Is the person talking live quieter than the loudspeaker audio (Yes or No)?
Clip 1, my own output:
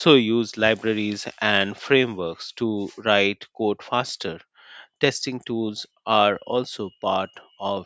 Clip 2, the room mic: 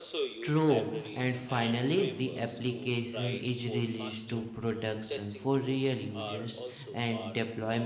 No